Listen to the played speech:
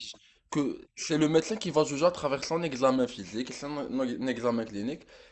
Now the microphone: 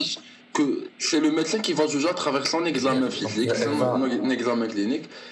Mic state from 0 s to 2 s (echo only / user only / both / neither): echo only